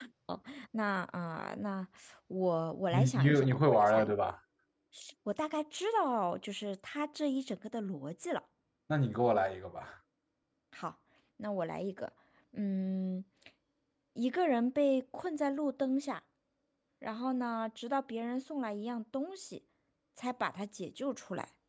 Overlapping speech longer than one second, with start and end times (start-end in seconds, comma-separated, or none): 2.9-4.1